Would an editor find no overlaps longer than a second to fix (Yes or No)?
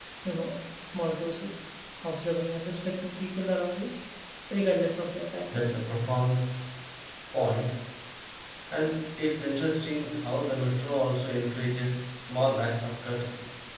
Yes